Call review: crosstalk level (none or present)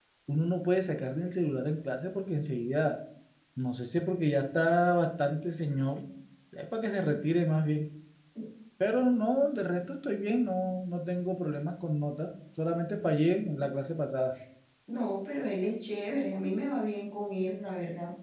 none